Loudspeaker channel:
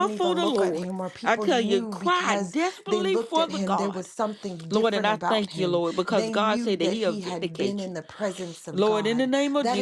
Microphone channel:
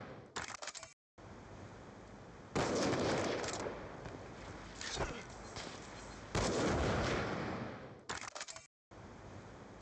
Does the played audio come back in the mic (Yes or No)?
No